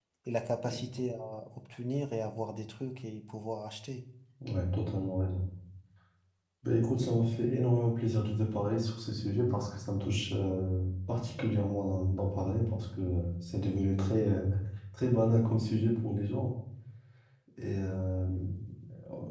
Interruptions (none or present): none